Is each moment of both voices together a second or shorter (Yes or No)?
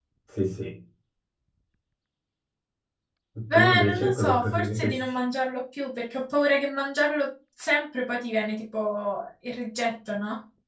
No